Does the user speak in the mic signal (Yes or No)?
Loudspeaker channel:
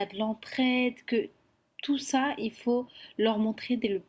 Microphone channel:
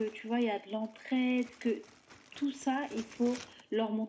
No